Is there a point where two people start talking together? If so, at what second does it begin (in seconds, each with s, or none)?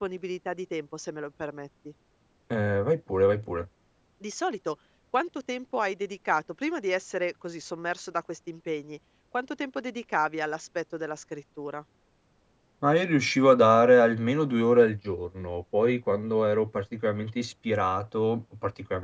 none